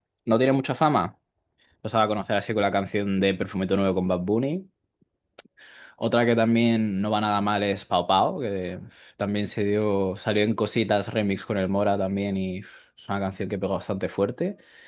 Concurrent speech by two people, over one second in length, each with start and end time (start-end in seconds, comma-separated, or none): none